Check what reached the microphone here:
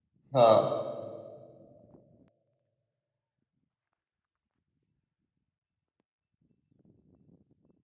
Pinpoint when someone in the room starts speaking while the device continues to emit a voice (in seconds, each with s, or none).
0.3 s